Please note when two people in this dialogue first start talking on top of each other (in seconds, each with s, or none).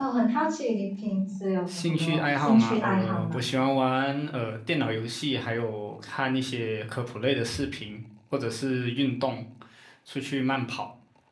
1.7 s